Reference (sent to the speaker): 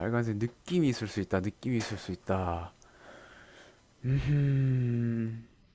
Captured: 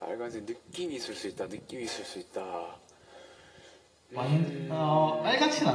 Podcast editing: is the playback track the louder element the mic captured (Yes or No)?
No